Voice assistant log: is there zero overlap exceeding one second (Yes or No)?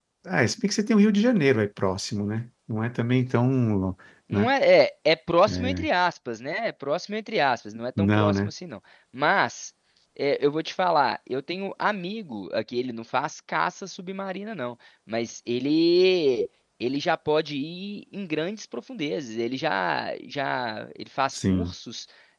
Yes